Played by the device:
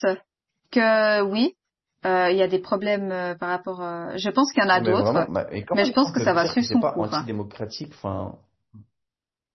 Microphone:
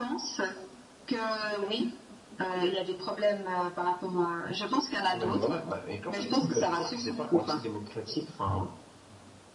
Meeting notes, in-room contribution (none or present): none